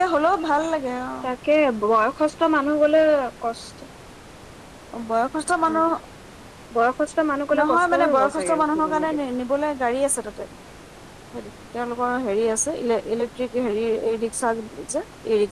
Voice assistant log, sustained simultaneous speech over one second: present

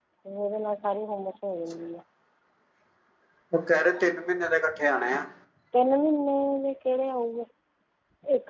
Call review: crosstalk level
none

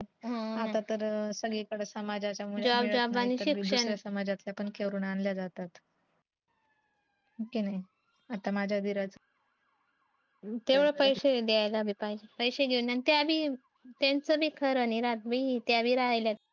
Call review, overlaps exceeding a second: present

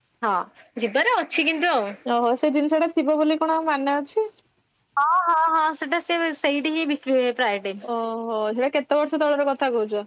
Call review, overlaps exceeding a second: none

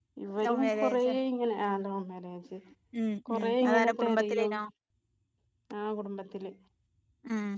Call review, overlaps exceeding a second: present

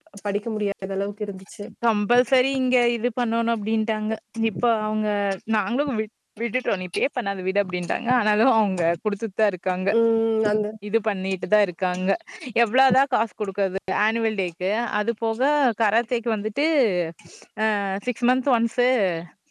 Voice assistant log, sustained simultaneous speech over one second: none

